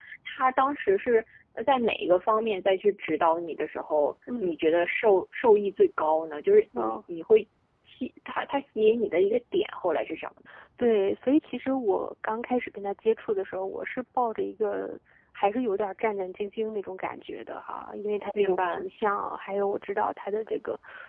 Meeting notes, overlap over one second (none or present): none